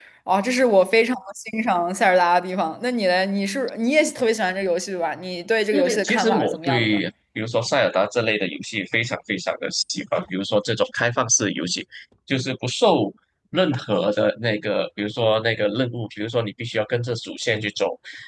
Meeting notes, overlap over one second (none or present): present